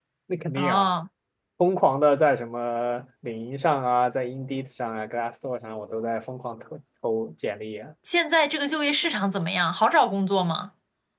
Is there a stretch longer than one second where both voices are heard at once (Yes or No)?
No